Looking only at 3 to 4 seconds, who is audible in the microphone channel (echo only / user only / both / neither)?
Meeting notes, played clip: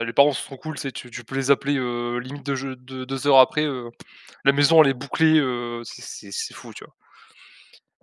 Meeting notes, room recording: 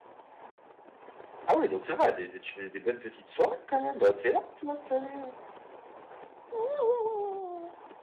user only